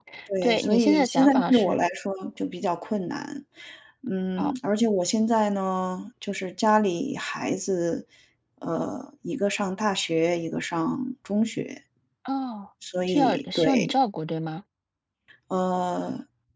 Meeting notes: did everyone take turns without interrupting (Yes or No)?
No